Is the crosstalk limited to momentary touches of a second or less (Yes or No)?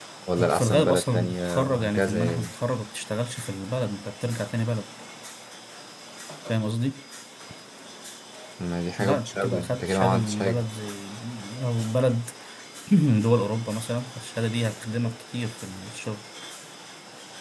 No